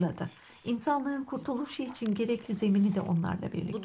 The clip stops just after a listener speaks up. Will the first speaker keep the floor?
No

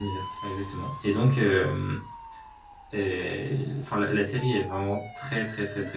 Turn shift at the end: No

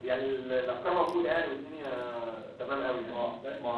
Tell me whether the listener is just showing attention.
No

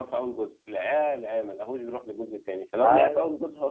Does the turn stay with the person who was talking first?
Yes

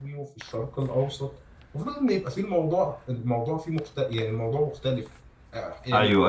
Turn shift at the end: Yes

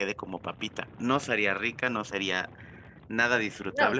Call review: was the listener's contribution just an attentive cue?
Yes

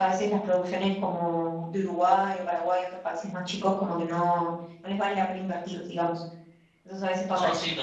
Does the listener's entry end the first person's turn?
Yes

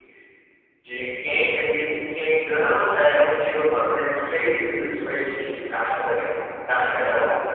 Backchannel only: Yes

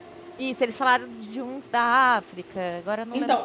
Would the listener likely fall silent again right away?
No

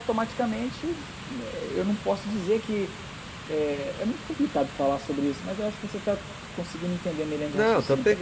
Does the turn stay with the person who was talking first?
No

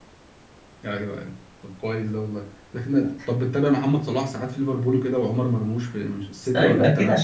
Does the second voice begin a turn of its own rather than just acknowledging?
Yes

